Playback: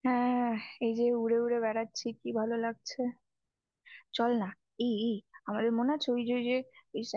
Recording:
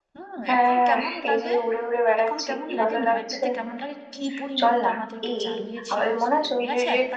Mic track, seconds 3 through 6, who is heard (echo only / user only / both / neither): both